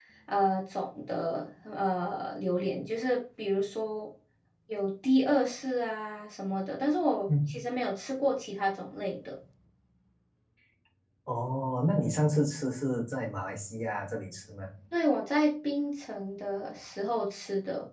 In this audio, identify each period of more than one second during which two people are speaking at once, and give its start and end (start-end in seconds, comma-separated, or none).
none